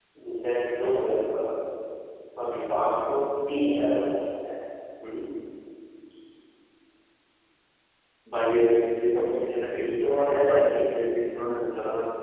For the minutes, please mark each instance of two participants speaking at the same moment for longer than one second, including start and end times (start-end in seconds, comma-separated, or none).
9.4-10.9